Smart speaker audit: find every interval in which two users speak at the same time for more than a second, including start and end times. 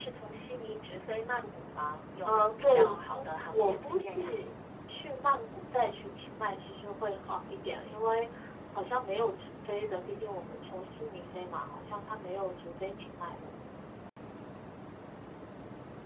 2.2-4.4

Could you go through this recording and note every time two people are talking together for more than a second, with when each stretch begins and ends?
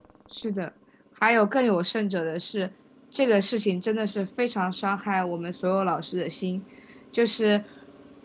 none

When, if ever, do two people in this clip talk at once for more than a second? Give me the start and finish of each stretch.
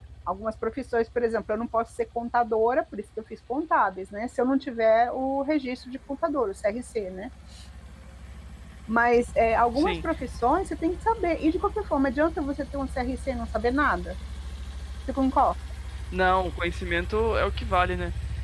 none

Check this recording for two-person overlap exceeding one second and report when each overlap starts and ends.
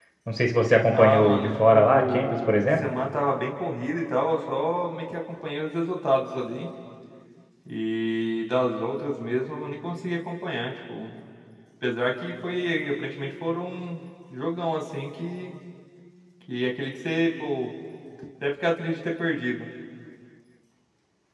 0.9-2.6

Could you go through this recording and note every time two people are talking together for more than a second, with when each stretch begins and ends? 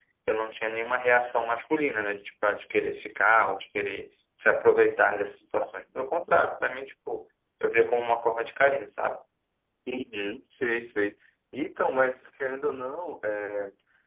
none

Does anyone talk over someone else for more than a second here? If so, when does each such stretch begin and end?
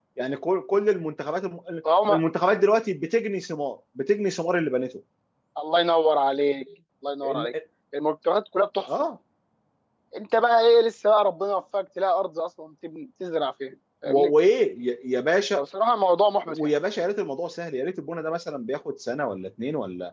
none

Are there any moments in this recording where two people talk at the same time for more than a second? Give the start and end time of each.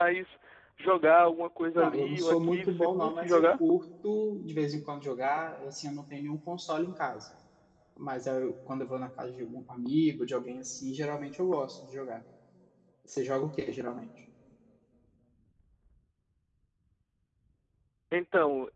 1.8-3.4

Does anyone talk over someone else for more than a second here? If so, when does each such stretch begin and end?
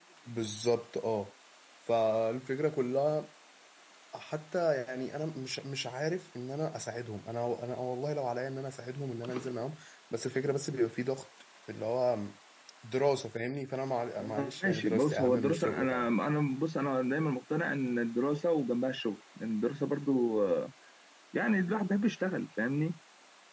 14.2-16.1

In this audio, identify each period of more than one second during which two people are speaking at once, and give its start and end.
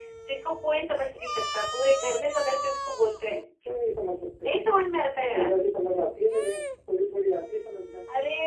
none

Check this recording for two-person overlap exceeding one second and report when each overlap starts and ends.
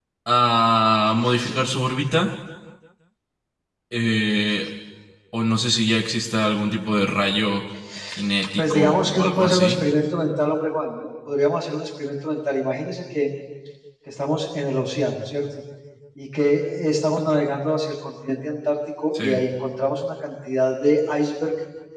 8.6-9.8

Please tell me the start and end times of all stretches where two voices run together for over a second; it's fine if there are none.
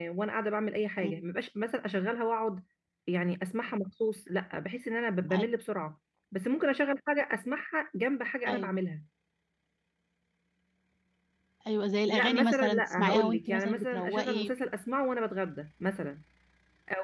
12.1-14.5

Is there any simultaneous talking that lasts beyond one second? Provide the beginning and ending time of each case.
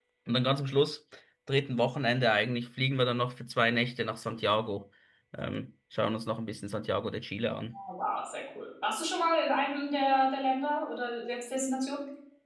none

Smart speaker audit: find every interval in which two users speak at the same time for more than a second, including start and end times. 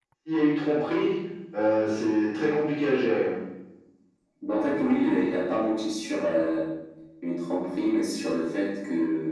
none

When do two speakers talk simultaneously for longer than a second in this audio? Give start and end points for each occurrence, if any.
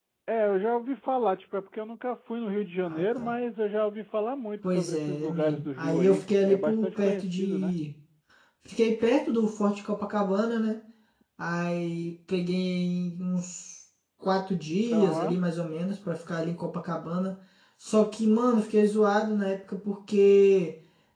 4.6-7.7

